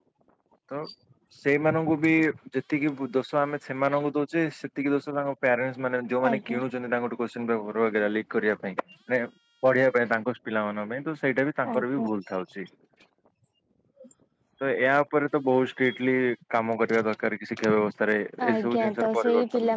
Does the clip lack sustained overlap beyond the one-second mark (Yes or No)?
No